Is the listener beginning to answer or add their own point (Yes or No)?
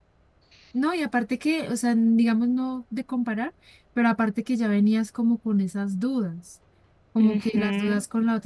No